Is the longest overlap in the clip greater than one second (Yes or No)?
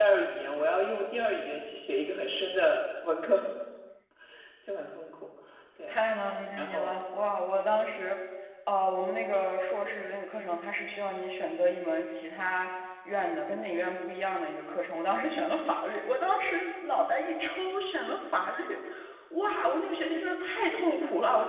No